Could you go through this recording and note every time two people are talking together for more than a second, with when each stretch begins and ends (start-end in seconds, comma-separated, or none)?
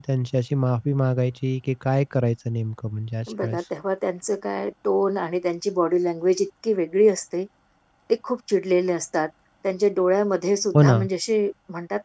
none